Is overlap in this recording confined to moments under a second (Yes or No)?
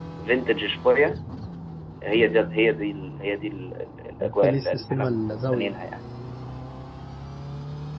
No